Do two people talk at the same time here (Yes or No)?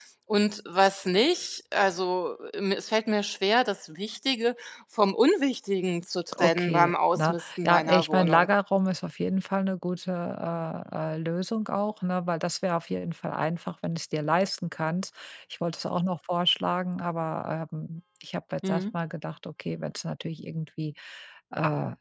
Yes